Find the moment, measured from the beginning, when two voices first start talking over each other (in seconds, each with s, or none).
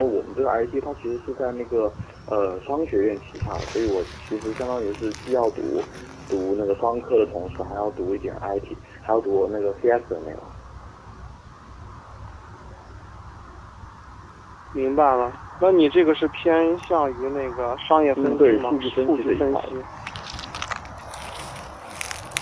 18.2 s